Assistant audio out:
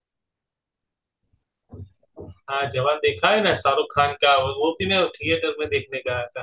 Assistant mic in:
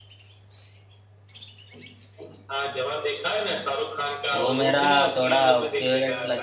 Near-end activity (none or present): present